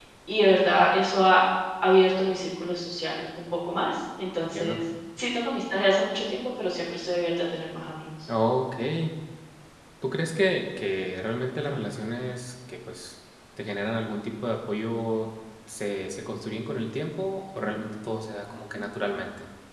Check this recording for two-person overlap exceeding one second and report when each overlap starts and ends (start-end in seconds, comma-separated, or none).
none